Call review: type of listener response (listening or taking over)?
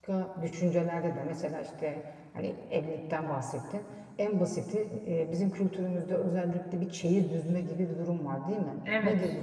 listening